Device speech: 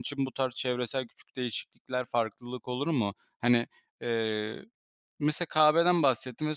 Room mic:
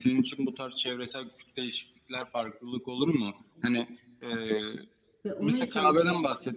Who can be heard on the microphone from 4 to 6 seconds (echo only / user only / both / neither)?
both